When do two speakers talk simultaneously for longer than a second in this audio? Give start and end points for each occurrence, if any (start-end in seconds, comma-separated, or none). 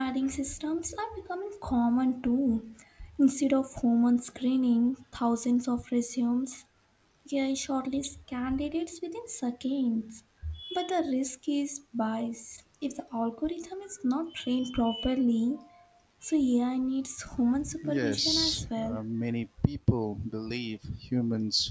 17.8-19.0